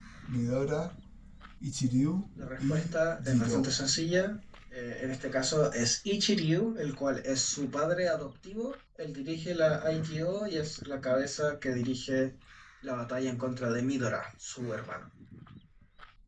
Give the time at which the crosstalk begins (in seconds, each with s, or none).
2.4 s